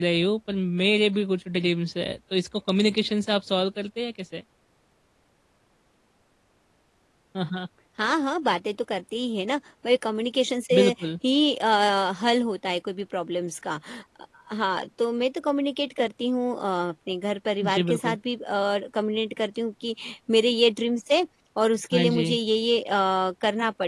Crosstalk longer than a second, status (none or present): none